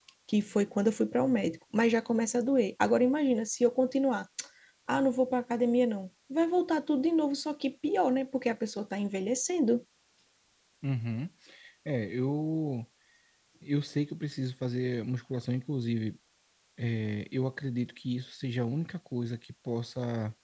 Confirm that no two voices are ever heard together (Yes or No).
Yes